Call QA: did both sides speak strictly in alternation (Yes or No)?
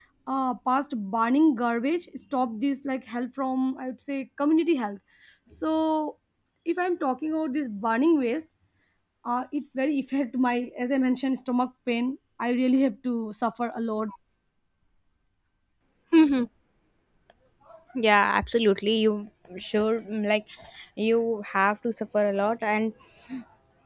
Yes